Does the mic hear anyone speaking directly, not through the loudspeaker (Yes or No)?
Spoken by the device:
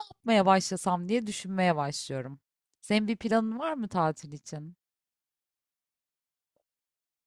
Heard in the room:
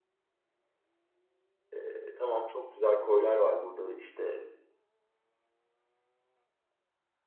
Yes